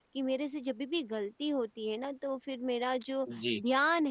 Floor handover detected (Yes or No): No